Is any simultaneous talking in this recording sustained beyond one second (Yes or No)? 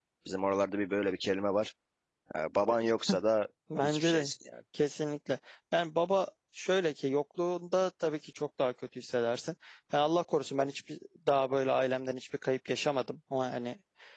No